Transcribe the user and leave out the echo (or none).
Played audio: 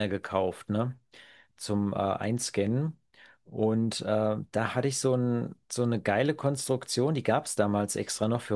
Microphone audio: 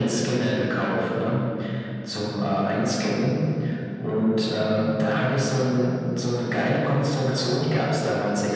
none